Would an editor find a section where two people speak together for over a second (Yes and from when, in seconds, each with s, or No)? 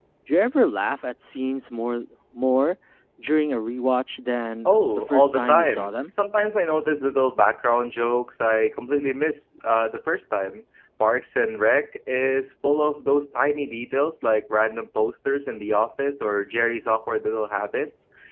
Yes, from 4.6 s